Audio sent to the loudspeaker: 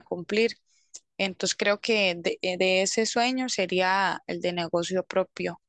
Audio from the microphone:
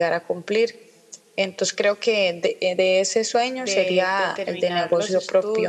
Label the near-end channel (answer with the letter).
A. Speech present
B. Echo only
A